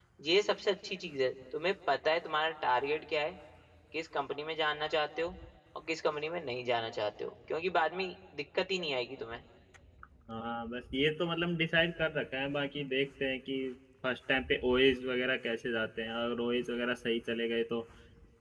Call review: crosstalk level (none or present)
none